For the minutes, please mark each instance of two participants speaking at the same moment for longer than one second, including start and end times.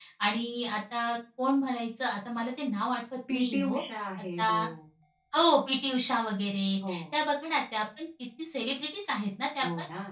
none

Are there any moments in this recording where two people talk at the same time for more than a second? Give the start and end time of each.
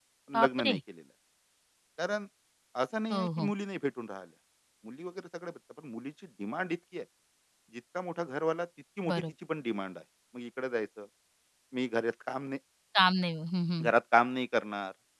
none

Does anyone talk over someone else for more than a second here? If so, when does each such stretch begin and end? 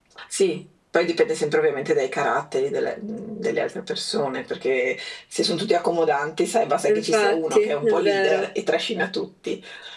6.9-8.5

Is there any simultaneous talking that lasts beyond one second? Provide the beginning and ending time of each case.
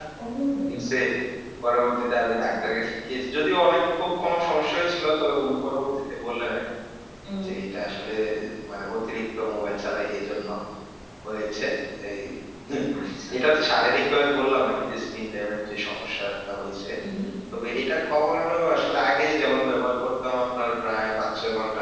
none

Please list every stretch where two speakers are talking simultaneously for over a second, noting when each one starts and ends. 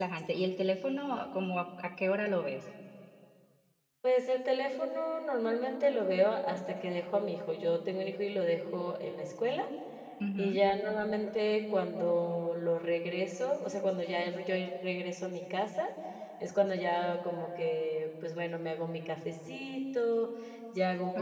none

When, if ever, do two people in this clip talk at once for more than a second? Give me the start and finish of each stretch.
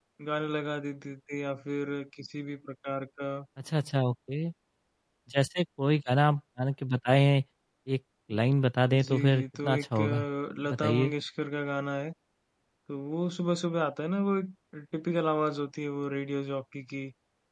9.0-10.2

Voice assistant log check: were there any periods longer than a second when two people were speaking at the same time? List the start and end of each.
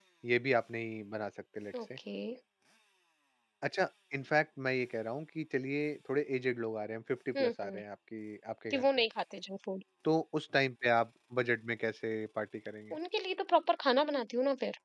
none

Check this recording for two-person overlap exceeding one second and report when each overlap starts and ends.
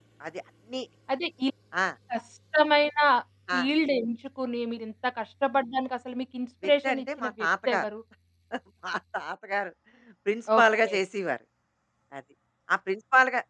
6.6-7.8

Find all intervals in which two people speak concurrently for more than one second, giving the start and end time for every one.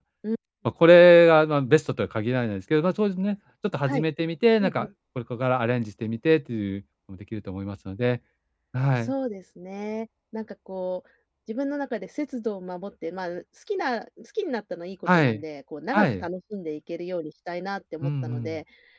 none

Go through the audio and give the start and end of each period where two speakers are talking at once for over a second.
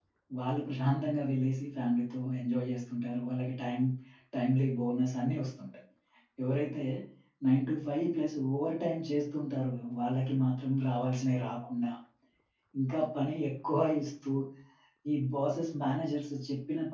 none

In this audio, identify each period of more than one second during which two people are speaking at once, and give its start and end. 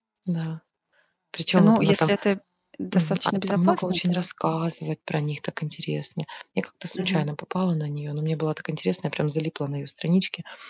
2.9-4.2

